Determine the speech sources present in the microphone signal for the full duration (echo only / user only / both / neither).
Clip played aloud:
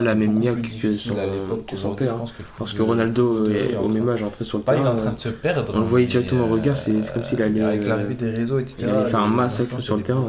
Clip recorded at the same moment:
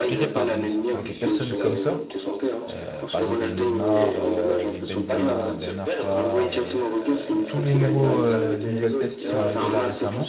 both